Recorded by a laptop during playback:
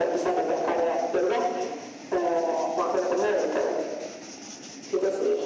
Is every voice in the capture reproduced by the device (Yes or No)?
Yes